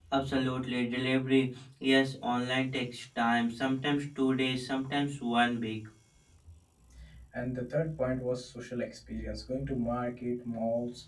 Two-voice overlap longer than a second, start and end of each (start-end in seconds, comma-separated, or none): none